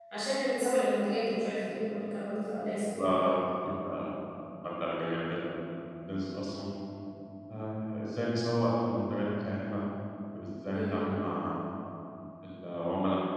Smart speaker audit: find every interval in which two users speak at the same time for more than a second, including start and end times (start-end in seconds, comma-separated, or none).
none